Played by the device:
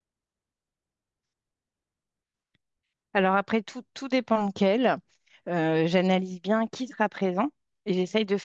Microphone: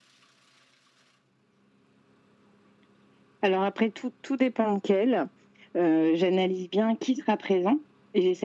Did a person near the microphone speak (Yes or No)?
No